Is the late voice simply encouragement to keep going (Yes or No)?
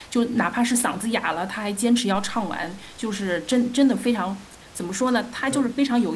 Yes